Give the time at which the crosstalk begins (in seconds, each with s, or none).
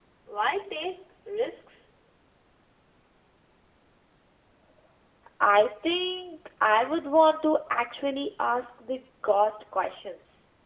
none